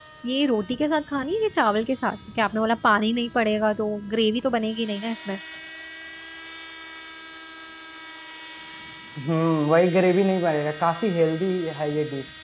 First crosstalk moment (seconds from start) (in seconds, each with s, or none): none